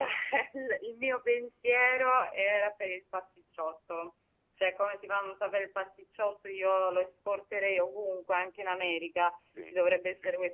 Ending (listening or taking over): listening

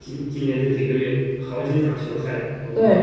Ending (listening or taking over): taking over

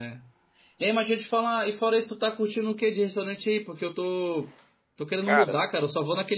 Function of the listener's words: listening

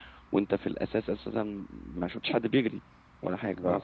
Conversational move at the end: listening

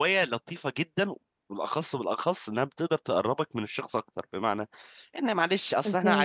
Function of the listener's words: listening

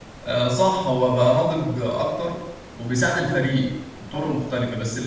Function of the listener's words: listening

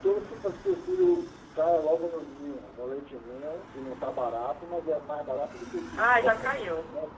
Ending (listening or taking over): taking over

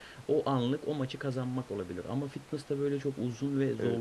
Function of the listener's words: taking over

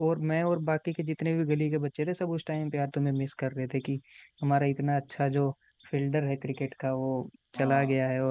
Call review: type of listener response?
listening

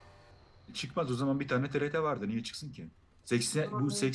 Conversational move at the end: listening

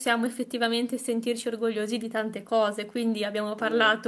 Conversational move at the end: listening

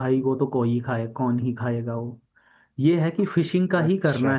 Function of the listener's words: listening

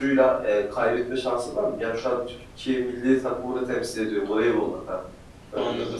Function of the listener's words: taking over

